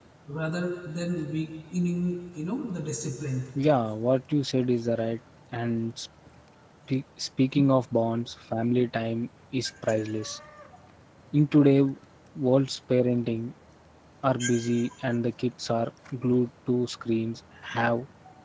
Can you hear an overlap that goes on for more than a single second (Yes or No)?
No